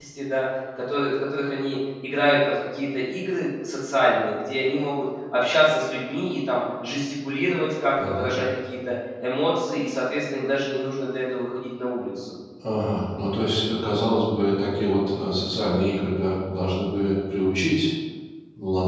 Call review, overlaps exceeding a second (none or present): none